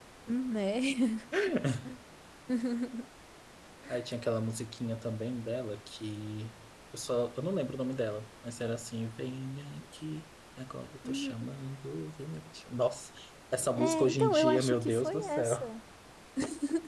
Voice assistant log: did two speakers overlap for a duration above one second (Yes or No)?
Yes